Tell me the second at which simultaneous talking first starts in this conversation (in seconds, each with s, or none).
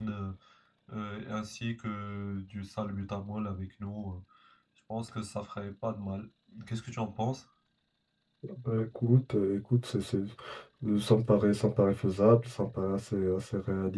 none